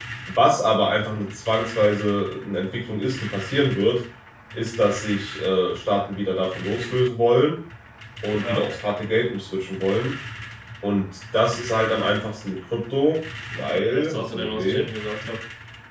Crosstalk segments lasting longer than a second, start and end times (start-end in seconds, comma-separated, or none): 13.6-14.8